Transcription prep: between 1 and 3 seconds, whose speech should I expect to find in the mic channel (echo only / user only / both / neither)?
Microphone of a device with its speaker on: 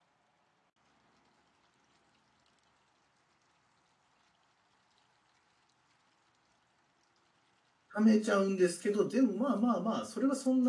neither